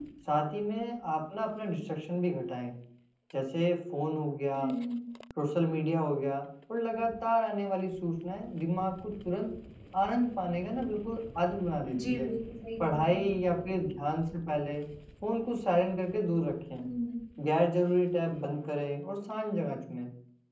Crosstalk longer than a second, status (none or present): none